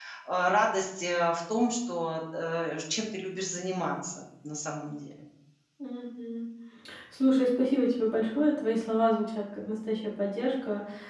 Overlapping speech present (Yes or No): No